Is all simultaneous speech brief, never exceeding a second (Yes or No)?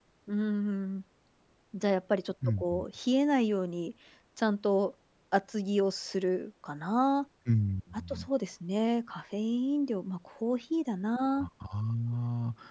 Yes